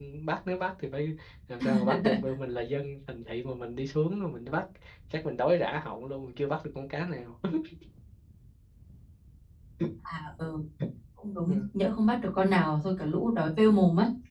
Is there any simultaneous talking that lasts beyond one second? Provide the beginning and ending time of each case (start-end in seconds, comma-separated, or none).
none